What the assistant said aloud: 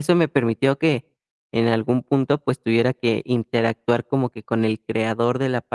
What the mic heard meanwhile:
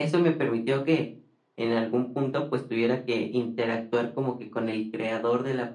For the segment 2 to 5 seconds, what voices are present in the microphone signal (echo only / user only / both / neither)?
echo only